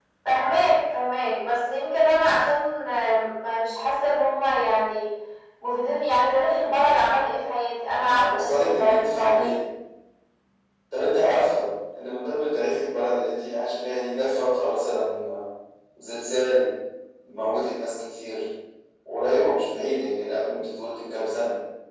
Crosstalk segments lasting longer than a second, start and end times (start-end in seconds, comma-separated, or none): 8.2-9.6